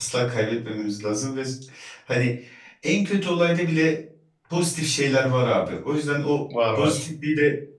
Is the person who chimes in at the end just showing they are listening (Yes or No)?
Yes